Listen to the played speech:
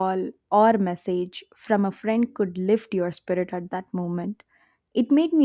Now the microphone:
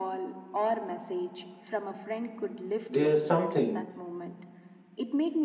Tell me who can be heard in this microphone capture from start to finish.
both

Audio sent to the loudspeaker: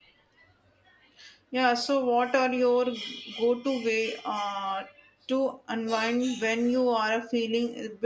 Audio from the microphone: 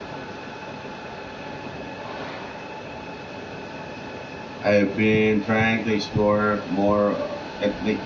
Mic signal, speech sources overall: user only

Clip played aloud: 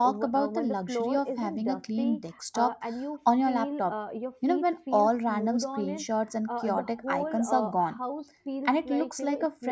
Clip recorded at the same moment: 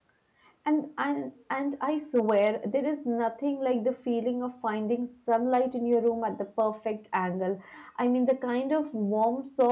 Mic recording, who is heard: user only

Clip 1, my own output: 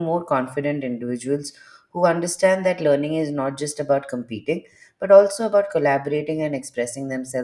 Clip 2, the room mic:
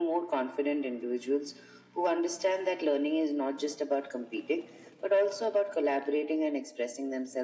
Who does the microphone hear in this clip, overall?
echo only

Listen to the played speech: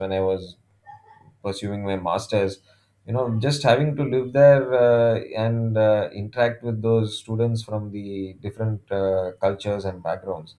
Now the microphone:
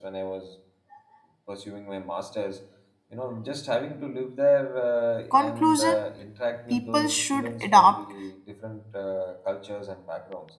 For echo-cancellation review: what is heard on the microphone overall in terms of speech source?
both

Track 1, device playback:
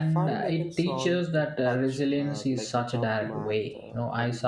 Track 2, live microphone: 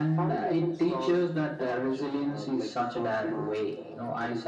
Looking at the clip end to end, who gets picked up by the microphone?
echo only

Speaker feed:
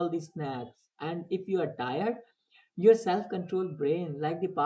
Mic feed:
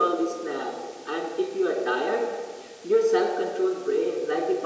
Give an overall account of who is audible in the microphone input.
echo only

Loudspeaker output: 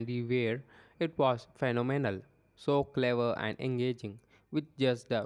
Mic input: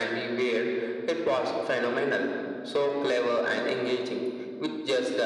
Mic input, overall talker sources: echo only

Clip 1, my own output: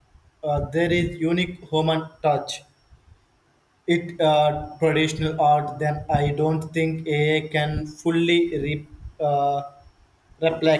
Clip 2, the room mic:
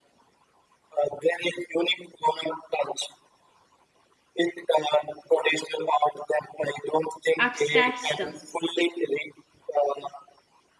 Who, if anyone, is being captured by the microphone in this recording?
both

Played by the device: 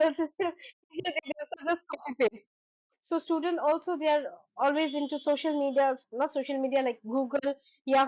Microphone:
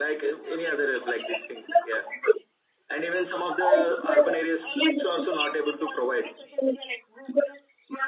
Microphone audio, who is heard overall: both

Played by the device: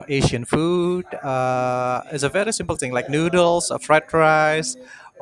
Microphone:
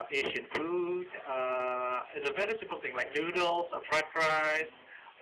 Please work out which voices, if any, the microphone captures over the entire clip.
echo only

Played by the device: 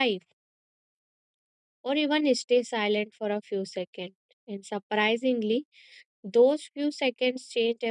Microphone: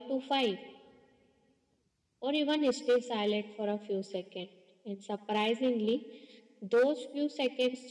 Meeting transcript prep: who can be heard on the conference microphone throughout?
echo only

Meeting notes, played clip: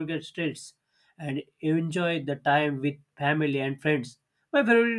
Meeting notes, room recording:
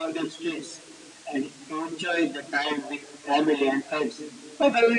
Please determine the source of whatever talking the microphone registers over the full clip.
echo only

